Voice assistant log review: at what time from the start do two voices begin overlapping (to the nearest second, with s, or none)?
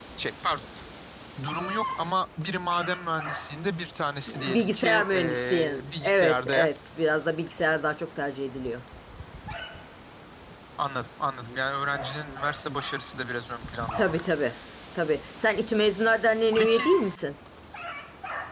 4 s